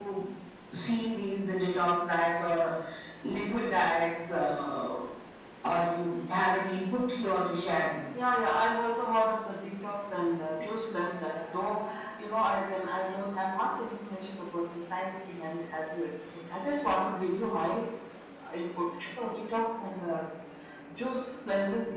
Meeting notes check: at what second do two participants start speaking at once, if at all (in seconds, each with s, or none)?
none